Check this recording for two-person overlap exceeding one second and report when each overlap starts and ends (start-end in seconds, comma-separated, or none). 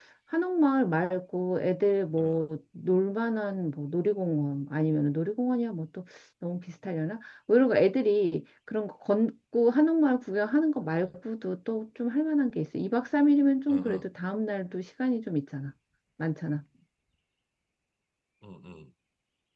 none